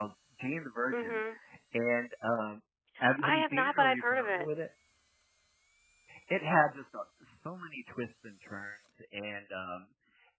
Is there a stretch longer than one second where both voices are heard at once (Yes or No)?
Yes